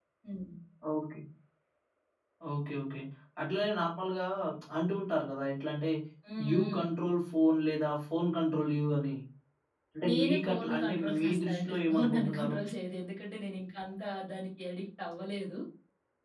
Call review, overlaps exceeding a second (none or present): present